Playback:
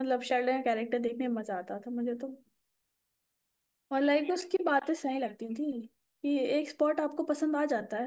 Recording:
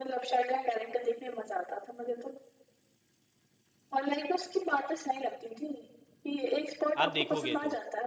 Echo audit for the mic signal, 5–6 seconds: echo only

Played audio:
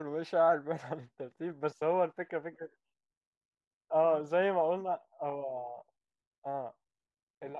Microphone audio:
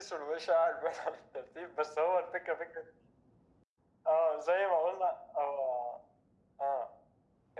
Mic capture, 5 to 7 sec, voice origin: echo only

